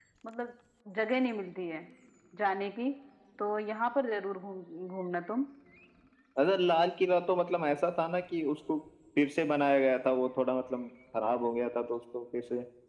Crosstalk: none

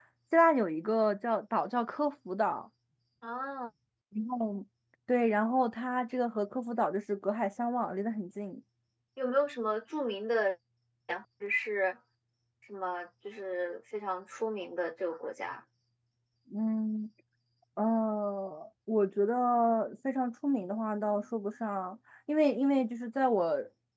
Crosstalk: none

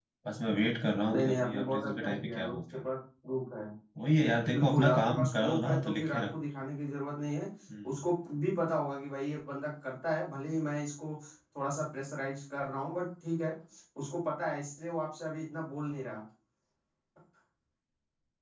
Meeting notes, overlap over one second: present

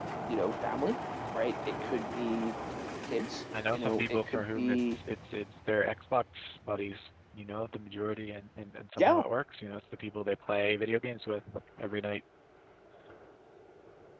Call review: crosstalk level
present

